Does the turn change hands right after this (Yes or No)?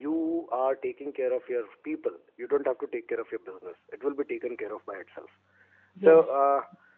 No